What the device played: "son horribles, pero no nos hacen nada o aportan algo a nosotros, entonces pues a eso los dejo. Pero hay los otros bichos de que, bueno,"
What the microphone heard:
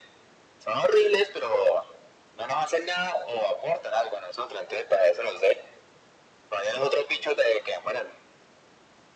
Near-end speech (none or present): none